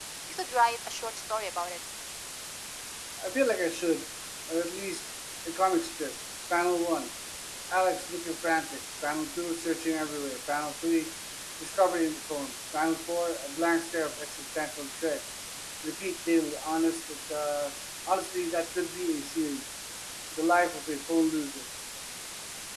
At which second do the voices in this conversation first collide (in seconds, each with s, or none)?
none